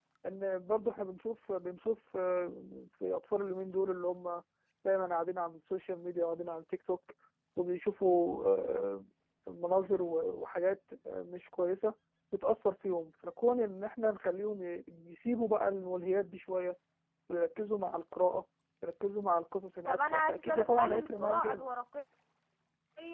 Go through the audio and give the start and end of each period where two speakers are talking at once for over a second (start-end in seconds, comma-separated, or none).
19.9-21.7